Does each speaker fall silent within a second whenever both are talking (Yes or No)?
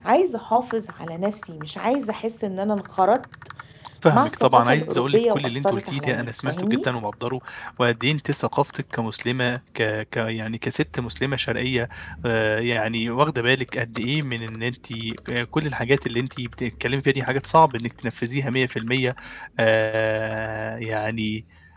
No